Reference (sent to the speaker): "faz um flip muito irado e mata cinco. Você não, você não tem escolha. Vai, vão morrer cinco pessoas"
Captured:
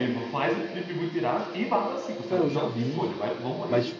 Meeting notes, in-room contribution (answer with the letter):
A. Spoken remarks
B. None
A